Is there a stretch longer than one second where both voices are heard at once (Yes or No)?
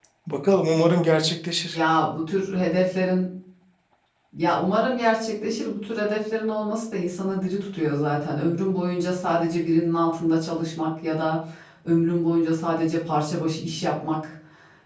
No